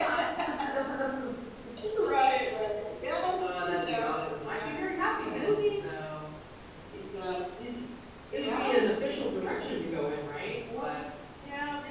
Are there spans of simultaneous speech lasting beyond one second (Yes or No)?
Yes